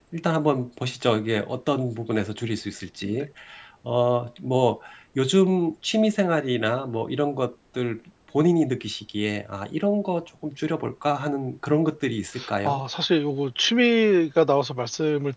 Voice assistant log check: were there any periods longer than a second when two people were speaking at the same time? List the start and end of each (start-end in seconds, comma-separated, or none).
none